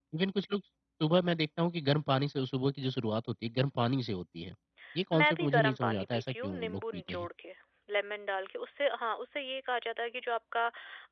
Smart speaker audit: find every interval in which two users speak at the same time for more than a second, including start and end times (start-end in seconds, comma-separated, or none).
5.1-7.3